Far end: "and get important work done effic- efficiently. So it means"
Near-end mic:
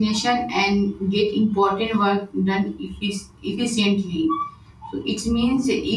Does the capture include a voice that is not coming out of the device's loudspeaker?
No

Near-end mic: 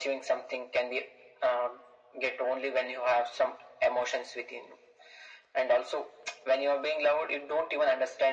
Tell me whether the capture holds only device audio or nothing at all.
Yes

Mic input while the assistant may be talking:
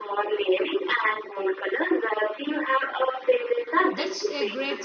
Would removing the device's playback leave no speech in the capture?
No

